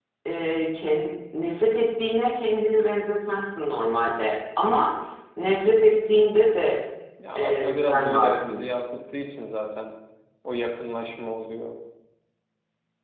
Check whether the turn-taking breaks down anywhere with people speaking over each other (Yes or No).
Yes